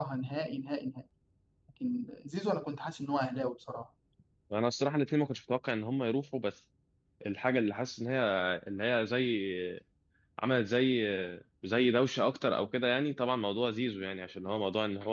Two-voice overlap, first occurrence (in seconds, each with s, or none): none